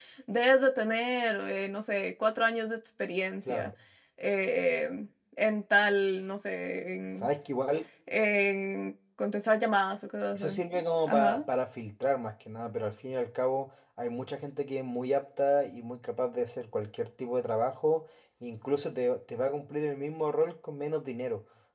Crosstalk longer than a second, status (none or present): none